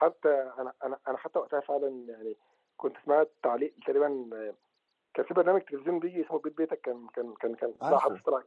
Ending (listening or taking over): listening